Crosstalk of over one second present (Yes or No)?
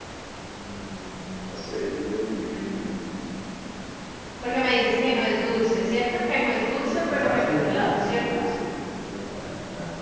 Yes